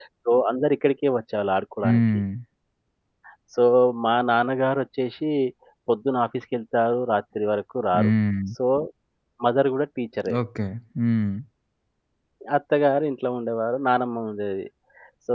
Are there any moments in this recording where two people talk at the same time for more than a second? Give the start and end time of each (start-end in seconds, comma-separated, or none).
none